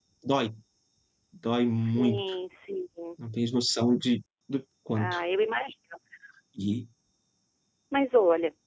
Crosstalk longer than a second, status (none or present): none